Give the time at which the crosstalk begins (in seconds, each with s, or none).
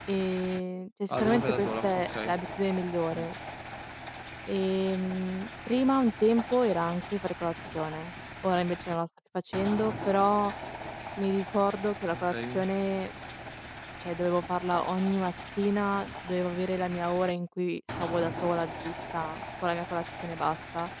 1.1 s